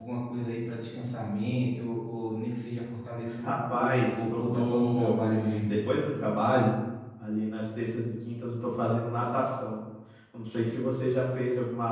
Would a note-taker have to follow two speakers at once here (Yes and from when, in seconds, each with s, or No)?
Yes, from 3.4 s